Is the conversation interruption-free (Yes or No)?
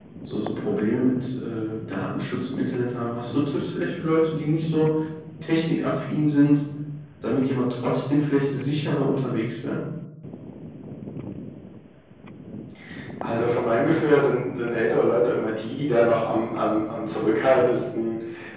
Yes